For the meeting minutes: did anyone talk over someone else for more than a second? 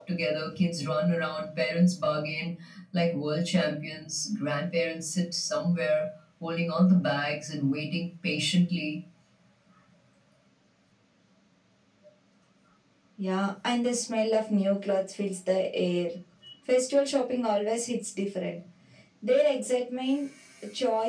No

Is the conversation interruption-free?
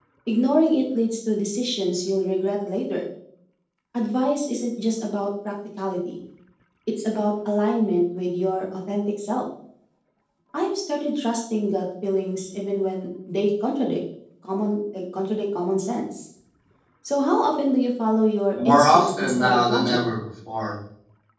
No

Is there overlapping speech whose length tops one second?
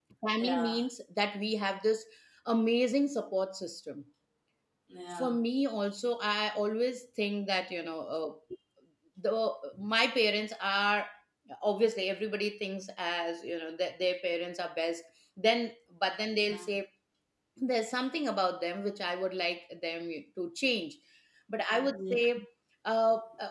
No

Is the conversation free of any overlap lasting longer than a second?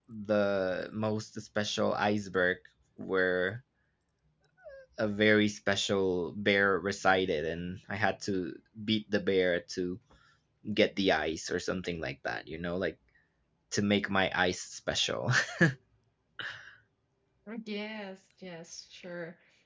Yes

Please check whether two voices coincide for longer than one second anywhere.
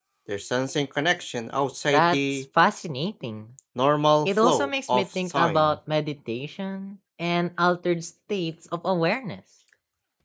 Yes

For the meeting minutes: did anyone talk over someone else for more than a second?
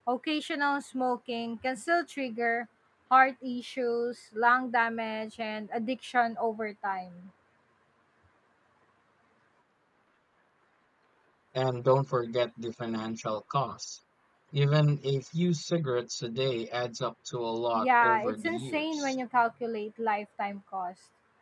Yes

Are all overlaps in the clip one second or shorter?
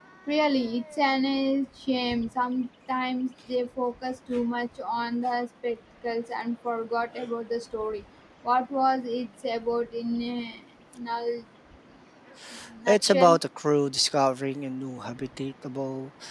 Yes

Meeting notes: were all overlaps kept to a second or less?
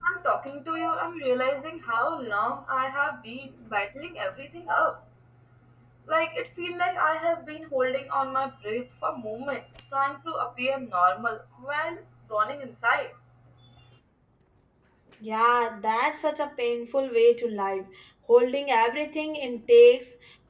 Yes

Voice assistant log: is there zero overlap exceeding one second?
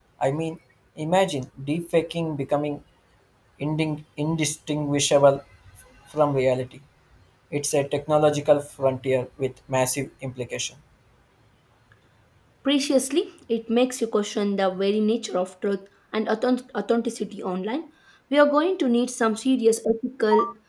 Yes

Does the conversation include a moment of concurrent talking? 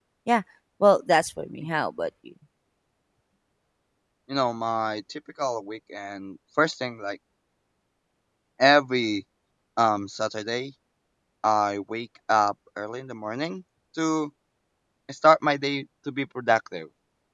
No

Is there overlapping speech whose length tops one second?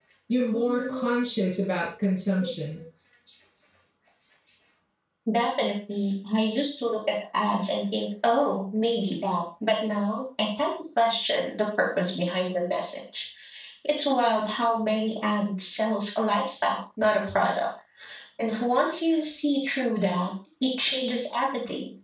No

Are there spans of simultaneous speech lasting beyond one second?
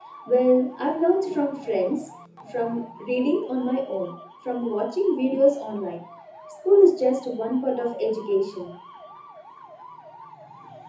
No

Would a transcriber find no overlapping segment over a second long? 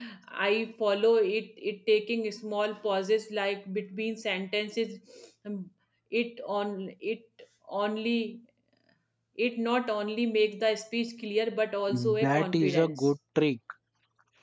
No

